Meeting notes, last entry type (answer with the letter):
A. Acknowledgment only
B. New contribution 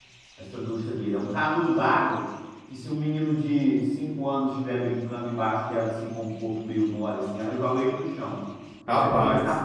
A